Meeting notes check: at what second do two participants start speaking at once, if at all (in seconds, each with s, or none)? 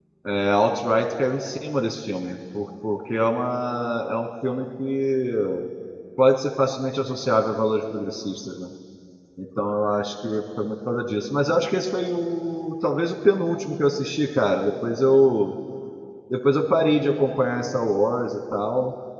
none